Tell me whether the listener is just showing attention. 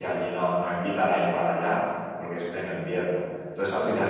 Yes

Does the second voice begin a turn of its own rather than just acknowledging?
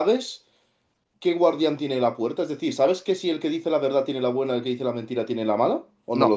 Yes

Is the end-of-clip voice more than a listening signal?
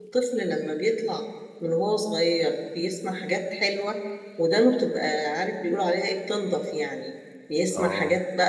No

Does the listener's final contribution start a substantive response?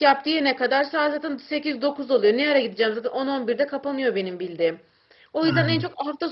No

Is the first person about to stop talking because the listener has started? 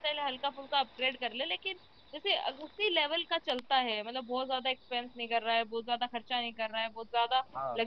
No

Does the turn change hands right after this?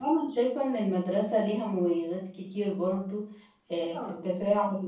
No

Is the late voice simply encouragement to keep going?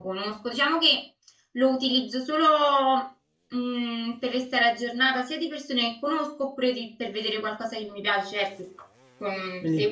Yes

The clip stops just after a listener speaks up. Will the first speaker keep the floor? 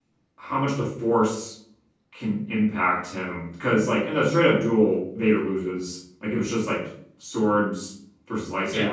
No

